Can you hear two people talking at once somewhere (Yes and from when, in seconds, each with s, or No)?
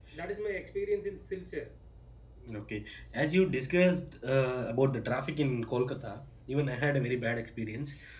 No